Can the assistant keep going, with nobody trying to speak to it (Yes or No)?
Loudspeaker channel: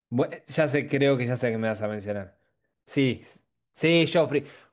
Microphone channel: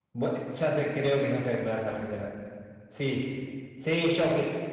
Yes